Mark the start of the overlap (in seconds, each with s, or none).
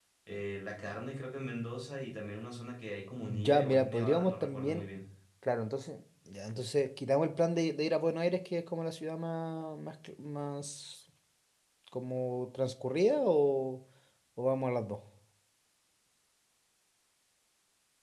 3.3 s